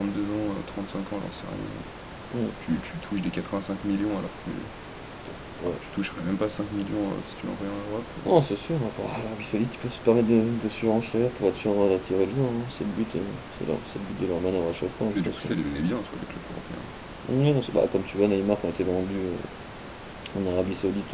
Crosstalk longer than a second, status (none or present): none